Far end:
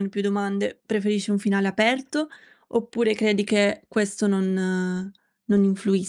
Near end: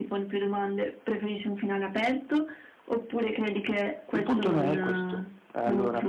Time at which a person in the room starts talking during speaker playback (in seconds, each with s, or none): 4.1 s